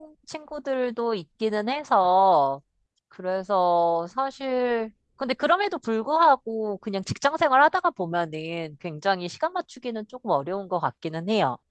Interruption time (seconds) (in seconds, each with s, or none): none